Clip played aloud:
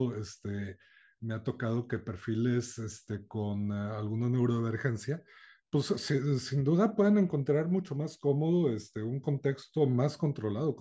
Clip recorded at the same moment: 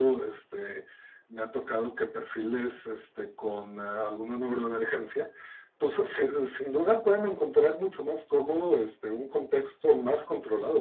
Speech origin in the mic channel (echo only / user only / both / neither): echo only